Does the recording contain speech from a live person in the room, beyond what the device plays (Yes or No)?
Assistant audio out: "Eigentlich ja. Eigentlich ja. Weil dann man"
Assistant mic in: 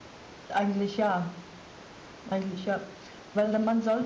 No